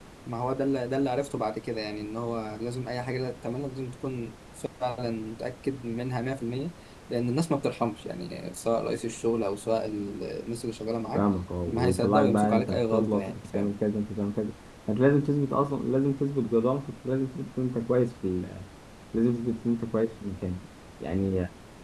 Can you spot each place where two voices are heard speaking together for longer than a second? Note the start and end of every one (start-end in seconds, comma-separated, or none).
11.7-13.7